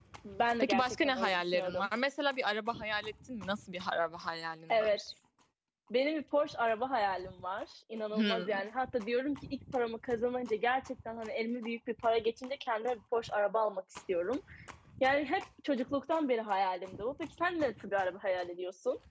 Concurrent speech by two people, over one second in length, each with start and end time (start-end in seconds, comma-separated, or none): 0.6-1.9